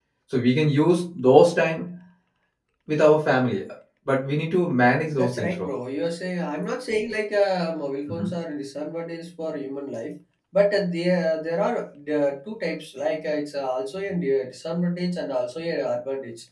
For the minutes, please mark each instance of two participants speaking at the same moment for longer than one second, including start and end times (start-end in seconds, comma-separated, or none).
none